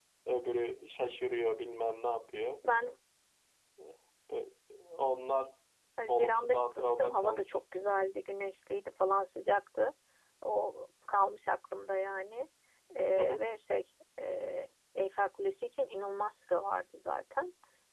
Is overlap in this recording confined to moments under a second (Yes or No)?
No